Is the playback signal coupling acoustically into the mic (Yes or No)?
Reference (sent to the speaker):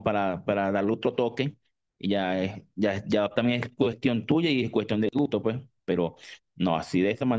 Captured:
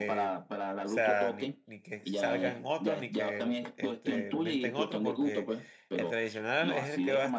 Yes